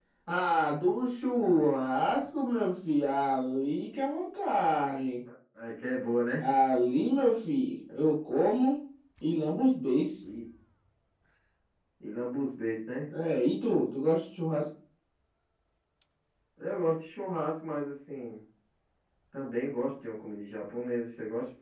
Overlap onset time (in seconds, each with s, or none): none